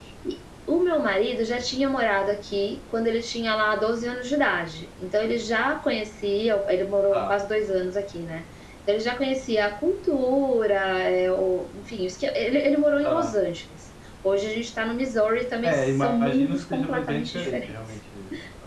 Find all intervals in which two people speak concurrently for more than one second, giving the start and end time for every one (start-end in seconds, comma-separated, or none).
15.6-17.9